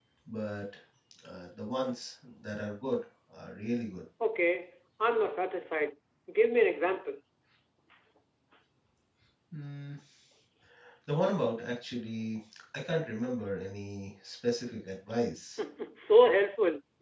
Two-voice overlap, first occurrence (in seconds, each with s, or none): none